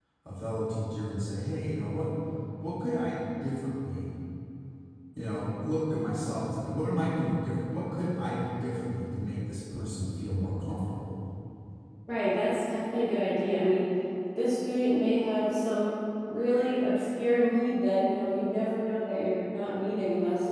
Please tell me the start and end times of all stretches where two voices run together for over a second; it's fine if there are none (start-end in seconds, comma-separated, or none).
none